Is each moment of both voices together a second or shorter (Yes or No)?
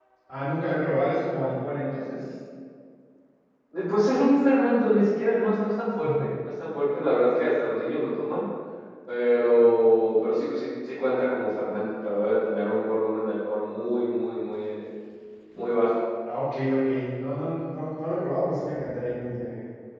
Yes